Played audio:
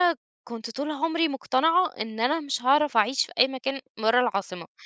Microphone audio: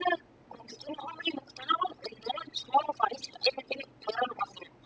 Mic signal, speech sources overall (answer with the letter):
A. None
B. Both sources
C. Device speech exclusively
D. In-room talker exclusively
C